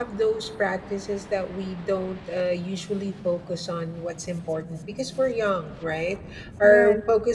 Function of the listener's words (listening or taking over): listening